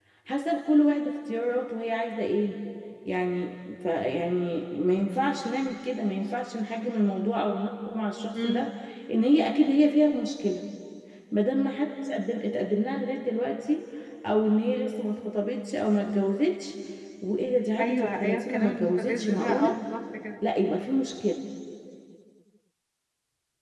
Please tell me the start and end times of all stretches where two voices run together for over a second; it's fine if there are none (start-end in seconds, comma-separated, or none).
17.8-19.7